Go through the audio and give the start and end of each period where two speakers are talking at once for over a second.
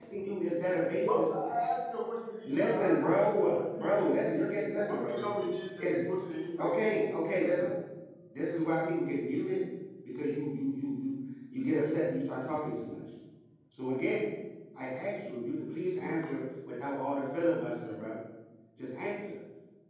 2.5-4.0

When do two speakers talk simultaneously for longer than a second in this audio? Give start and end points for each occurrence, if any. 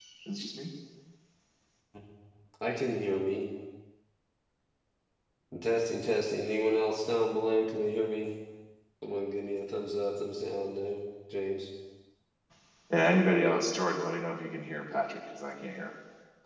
none

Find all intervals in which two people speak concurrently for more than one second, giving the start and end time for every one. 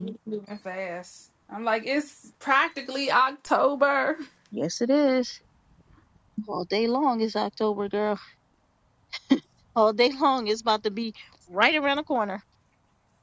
none

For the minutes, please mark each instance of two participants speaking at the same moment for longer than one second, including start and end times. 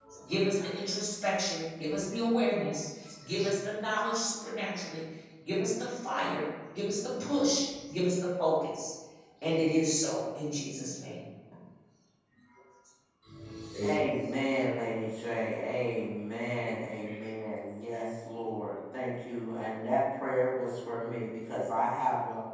none

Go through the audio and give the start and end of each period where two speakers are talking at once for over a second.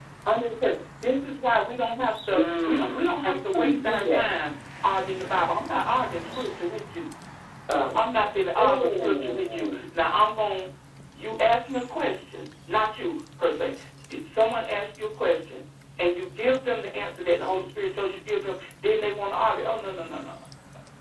2.3-4.3, 8.6-9.8

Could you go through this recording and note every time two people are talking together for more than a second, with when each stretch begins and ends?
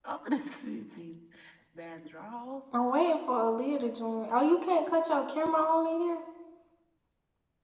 none

